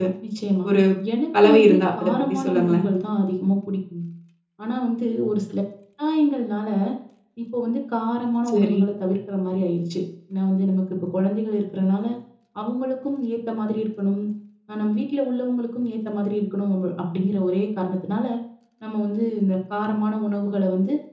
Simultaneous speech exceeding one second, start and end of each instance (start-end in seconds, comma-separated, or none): 1.4-2.9